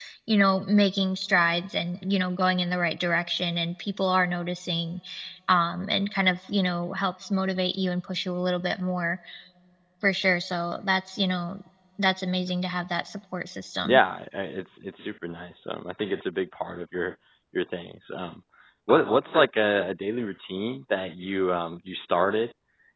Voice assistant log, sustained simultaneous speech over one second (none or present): none